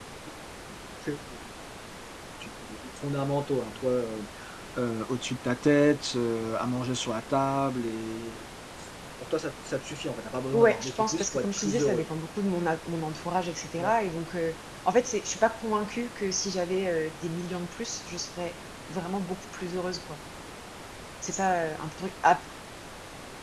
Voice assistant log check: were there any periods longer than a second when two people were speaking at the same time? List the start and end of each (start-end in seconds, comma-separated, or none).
10.5-12.1